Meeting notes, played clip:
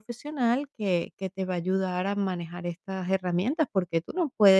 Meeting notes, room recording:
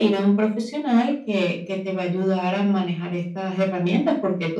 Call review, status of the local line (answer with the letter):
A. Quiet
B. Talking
A